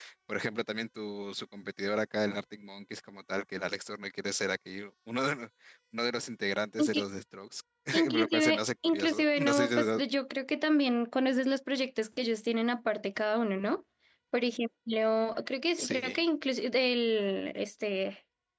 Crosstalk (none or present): present